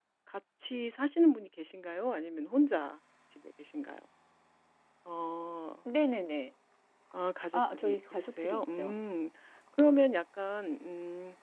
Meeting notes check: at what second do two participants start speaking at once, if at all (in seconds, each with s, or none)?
7.5 s